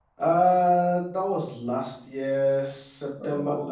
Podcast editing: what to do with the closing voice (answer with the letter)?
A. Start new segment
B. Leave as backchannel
B